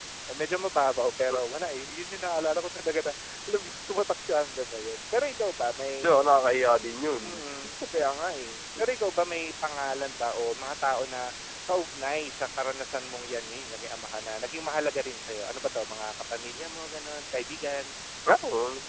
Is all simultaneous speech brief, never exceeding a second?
Yes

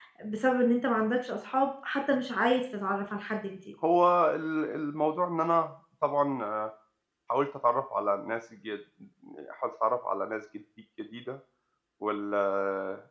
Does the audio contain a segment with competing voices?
No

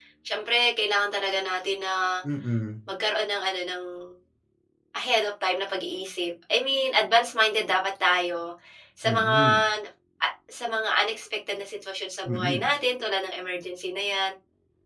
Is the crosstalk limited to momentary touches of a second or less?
Yes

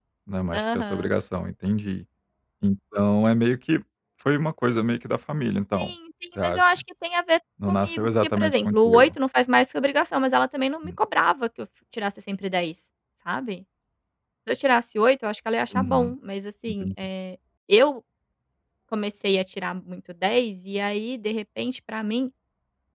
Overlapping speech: Yes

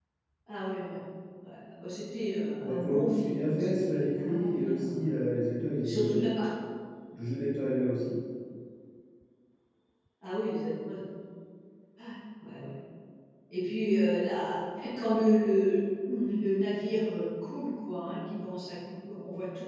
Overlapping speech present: Yes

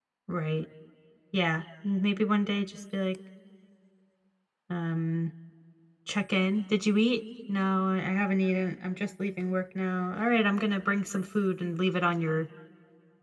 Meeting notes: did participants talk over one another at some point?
No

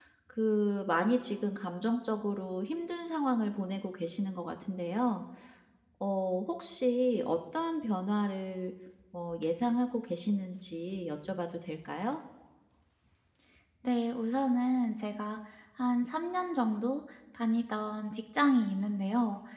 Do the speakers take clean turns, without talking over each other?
Yes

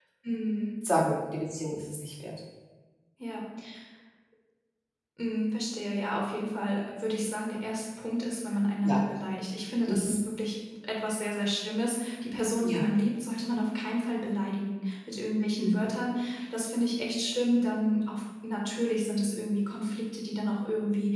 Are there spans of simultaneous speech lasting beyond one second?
No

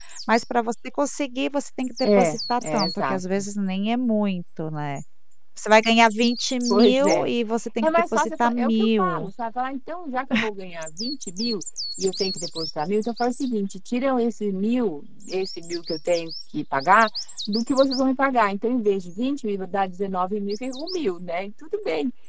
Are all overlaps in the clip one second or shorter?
No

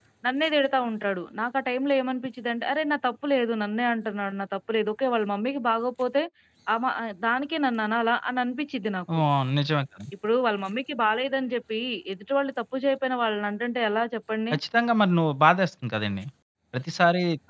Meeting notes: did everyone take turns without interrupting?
Yes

